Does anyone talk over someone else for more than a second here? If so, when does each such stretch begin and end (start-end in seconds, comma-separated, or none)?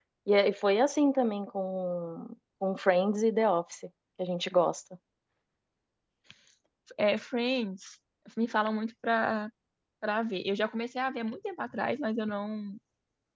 none